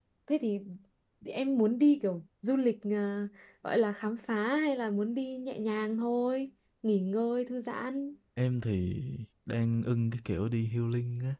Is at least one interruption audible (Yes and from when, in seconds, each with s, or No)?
No